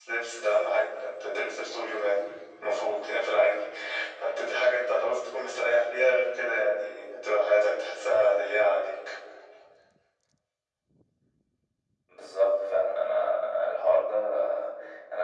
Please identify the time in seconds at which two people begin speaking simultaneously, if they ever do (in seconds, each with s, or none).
none